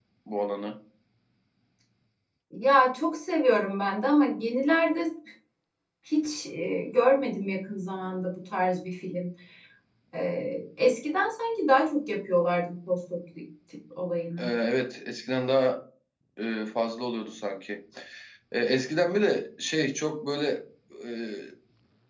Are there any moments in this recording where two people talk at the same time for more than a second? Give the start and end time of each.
none

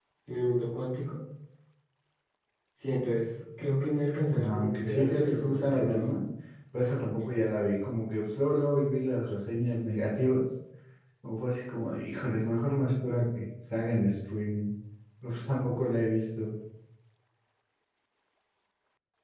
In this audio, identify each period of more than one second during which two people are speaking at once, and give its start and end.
4.2-6.1

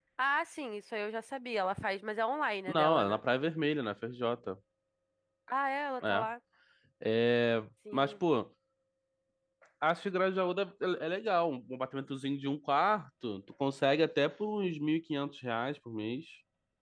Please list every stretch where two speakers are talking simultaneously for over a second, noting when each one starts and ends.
none

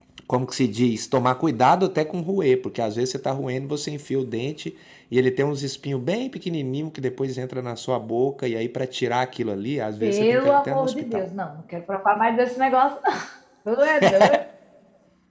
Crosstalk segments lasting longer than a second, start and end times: 10.0-11.2

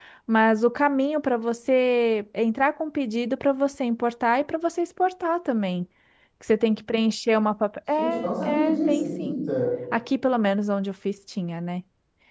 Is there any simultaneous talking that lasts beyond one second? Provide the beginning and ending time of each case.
8.0-9.4

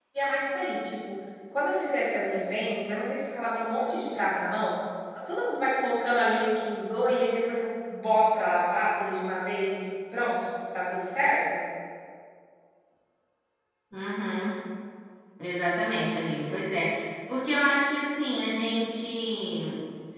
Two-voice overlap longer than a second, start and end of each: none

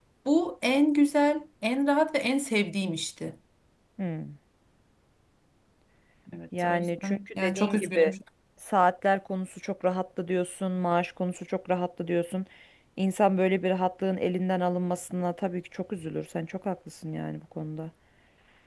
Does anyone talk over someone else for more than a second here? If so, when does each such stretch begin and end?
6.6-8.1

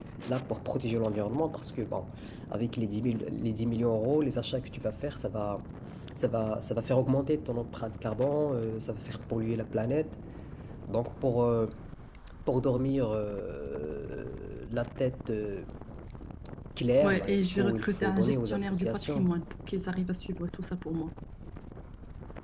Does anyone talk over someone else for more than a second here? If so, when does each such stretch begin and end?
17.0-19.3

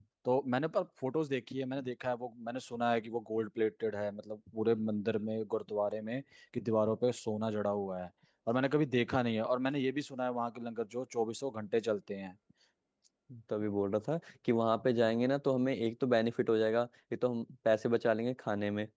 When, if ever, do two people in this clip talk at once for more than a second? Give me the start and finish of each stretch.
none

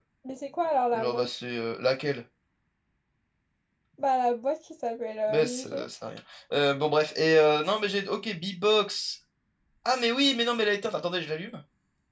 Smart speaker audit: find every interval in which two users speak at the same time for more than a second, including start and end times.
none

